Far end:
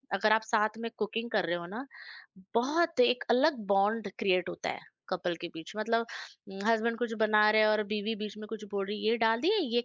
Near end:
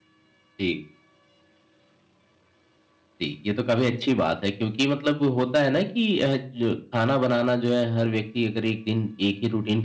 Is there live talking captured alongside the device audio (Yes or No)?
Yes